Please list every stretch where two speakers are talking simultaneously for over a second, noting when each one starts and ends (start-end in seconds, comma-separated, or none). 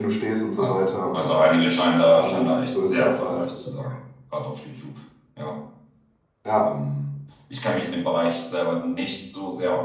2.1-3.5